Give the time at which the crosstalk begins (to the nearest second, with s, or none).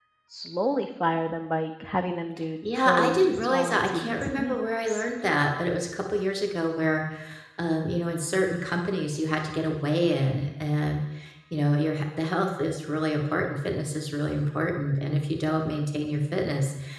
3 s